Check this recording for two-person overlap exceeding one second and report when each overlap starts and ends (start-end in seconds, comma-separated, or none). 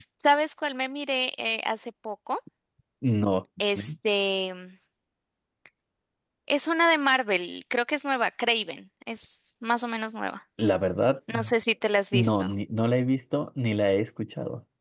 none